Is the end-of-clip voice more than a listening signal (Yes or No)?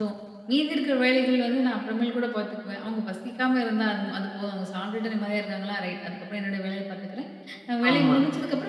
No